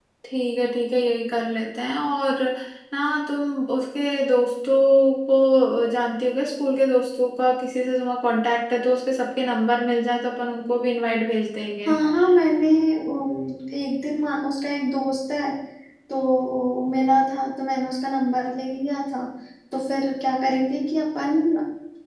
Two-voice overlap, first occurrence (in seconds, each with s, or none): none